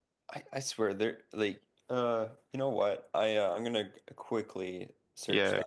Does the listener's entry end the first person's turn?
Yes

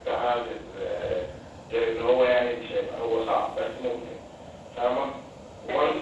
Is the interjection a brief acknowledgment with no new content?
No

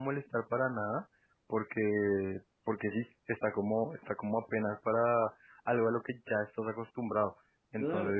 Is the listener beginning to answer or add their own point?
Yes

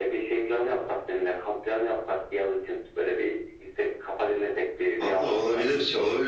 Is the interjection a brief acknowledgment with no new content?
No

